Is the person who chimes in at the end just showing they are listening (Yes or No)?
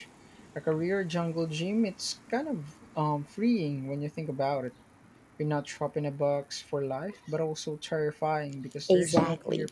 No